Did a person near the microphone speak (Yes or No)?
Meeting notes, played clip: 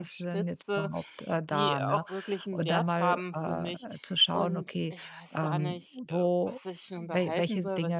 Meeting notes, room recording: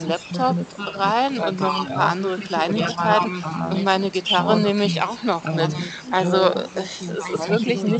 Yes